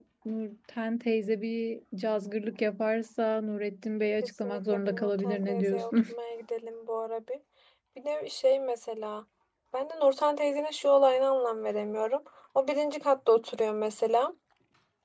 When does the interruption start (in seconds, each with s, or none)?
4.4 s